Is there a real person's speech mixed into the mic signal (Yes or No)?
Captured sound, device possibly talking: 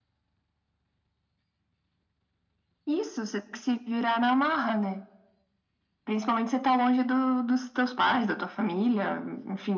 No